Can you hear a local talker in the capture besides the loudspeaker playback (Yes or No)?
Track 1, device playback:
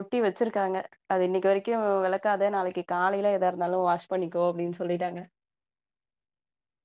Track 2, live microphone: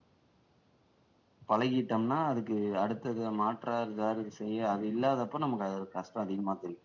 Yes